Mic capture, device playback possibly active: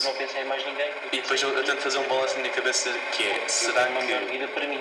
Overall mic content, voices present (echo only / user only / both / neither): echo only